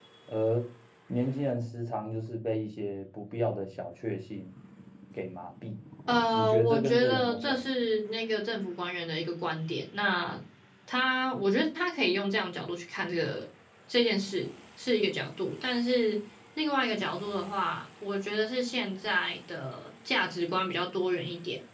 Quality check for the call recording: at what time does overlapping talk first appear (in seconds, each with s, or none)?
6.3 s